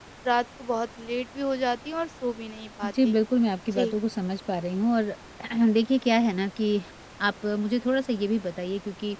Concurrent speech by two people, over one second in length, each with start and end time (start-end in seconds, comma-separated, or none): none